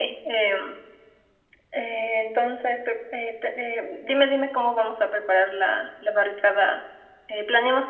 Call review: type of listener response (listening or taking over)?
listening